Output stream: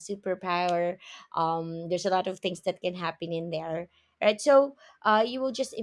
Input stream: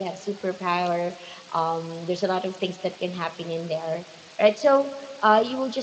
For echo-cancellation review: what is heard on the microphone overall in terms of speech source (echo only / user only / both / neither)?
echo only